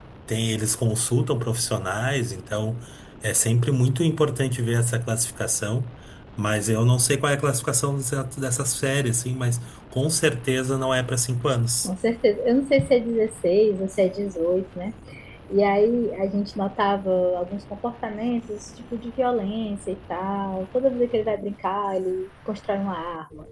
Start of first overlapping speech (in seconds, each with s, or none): none